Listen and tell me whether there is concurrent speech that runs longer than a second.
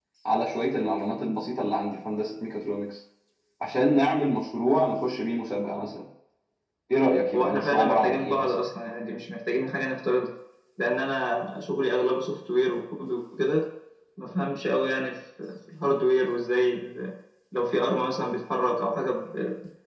Yes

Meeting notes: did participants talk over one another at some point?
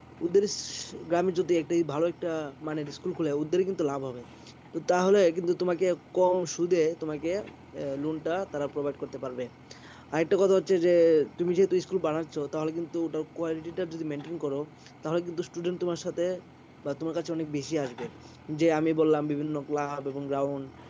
No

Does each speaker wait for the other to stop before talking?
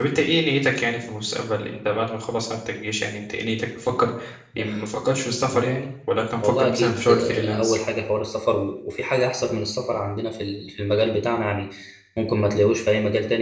No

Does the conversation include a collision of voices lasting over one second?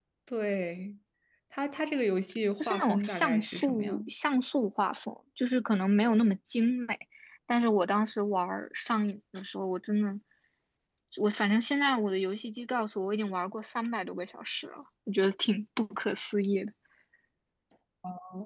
Yes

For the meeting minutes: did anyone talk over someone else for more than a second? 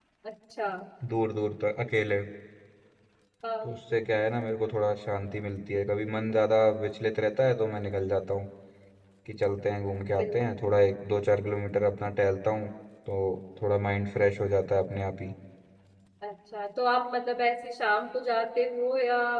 No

